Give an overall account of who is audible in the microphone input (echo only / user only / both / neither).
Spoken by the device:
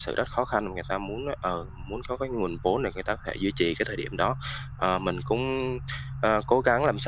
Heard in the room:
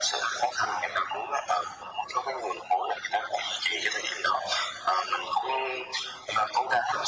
echo only